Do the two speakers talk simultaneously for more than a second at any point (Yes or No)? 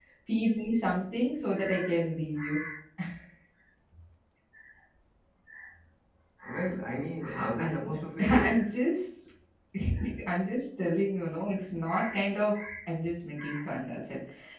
Yes